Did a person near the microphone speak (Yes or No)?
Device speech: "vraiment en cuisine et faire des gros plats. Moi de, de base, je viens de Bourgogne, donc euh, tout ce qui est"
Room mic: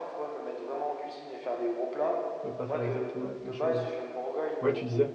Yes